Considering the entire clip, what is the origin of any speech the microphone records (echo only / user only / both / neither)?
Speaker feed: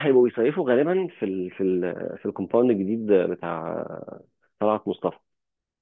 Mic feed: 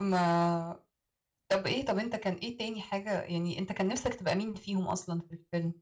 user only